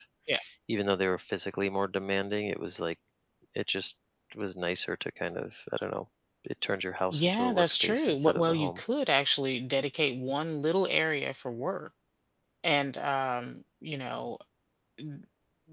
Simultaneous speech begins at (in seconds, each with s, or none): 7.1 s